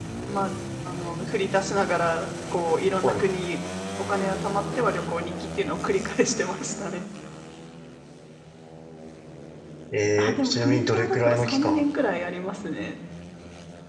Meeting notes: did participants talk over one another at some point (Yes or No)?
Yes